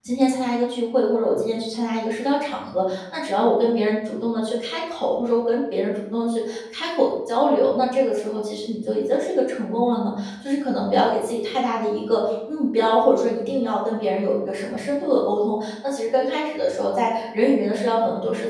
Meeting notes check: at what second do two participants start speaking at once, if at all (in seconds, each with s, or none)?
none